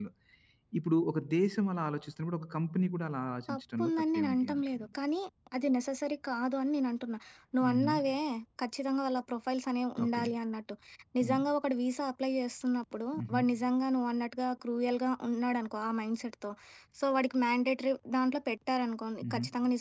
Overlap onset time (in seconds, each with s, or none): 3.5 s